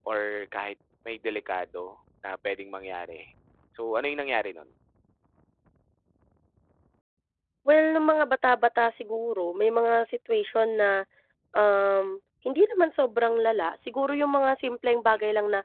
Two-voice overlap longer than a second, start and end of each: none

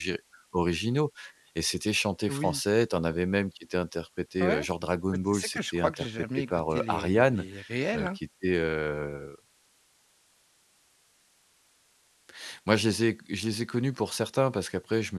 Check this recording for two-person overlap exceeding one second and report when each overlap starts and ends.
5.3-7.5

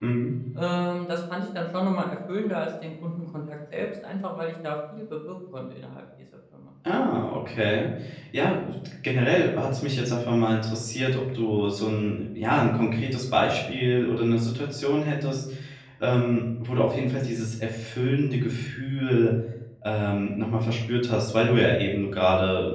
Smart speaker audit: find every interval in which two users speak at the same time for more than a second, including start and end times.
none

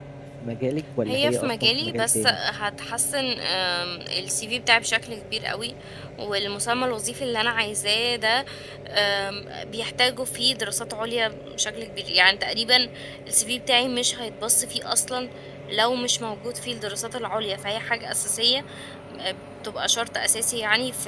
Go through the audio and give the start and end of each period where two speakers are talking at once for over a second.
1.1-2.4

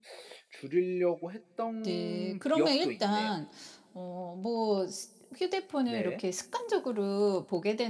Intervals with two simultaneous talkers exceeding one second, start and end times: 1.8-3.3

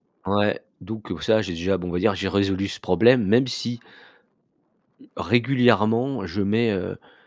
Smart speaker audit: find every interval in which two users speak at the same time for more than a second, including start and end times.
none

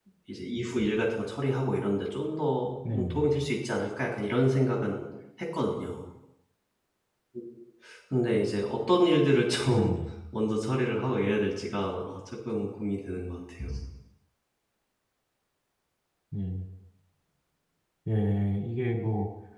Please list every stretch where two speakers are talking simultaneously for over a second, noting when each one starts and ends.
none

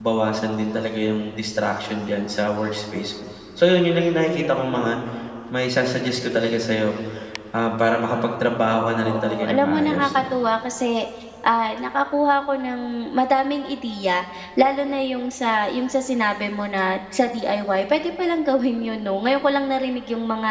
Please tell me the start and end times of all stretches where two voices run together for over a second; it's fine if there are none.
9.0-10.2

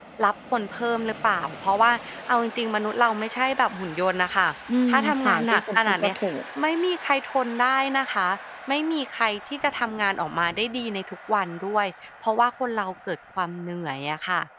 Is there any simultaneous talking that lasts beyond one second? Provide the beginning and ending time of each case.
4.9-6.1

